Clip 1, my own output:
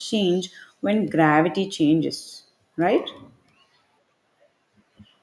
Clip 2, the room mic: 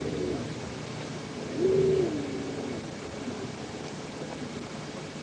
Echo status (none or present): none